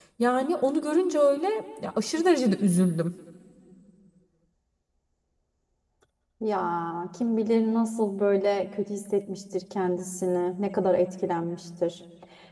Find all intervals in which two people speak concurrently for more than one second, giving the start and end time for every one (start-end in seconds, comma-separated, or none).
none